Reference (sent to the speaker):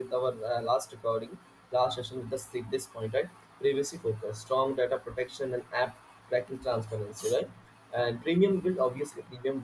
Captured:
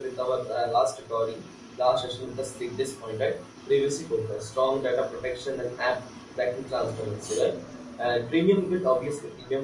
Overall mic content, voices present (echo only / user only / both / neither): echo only